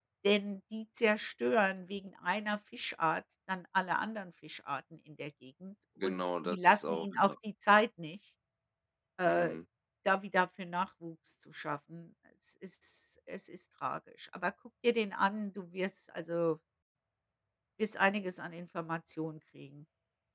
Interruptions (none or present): present